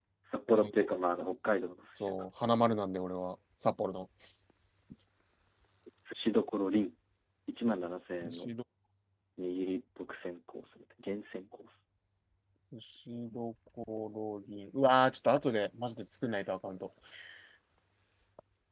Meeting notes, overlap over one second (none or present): none